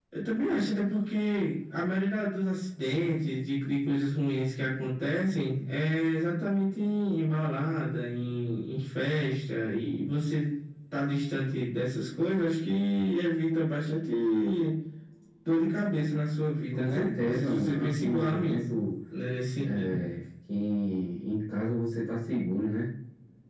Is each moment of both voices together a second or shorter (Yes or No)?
No